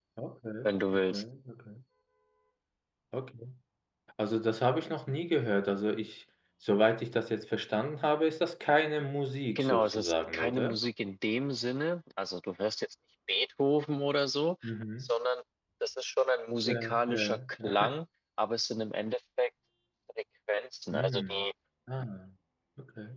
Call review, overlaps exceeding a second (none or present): present